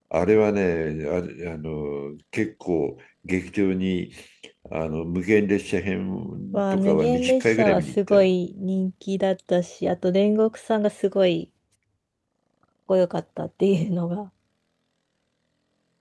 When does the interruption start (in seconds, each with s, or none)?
6.5 s